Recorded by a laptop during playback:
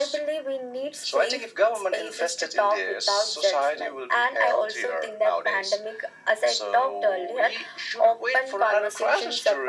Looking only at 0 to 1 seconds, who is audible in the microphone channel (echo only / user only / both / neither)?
echo only